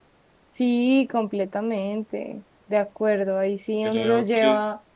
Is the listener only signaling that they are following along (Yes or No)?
Yes